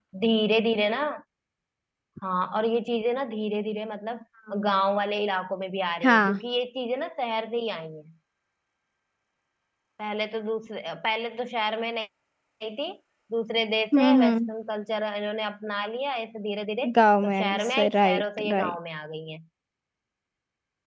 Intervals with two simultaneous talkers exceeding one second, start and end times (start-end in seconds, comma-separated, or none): 17.2-18.8